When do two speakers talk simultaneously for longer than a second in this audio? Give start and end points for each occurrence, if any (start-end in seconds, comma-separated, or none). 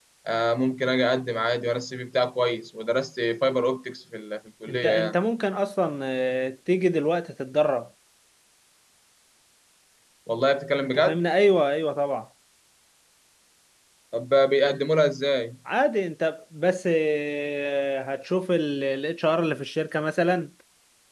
none